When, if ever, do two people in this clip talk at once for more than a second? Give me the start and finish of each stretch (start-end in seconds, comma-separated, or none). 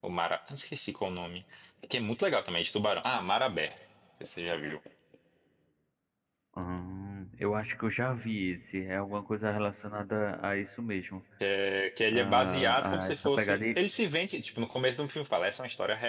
12.1-13.8